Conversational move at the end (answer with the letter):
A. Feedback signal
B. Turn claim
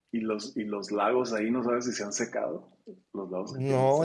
B